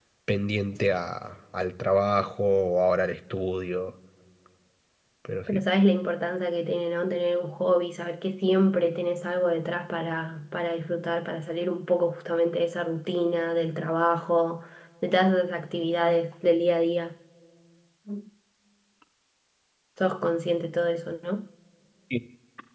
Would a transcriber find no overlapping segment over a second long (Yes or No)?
Yes